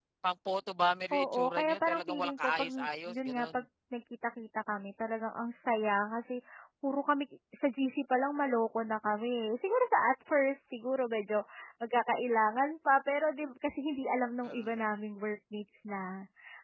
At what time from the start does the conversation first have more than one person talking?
1.1 s

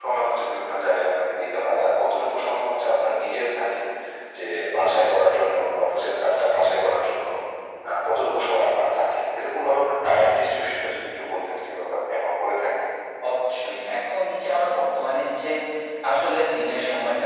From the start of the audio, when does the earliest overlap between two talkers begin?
none

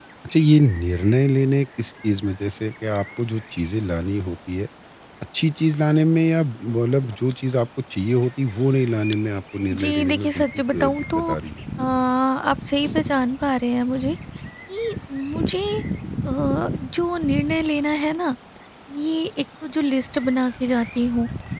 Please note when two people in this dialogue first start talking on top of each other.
9.7 s

